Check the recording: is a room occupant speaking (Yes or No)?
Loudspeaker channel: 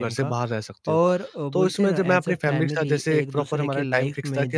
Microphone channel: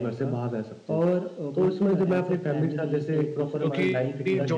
Yes